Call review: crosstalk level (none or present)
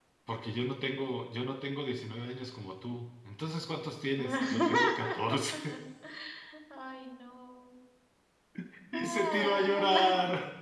present